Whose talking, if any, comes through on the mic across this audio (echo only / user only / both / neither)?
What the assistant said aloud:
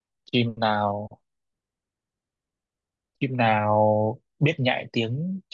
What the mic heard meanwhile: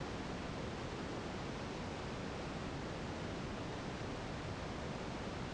neither